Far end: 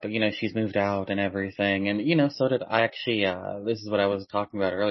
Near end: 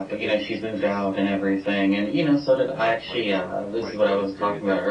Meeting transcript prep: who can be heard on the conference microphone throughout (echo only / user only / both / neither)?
both